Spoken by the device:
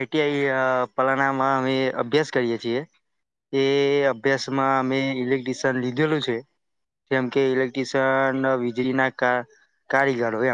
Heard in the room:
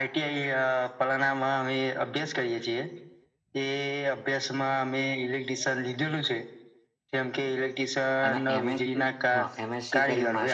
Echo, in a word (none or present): present